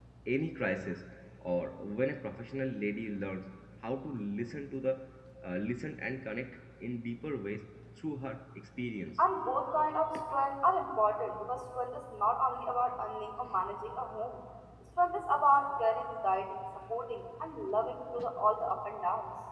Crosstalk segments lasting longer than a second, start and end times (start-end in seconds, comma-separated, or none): none